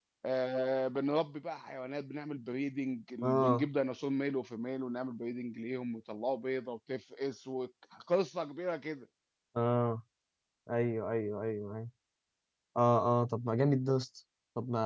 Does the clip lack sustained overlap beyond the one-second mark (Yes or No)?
Yes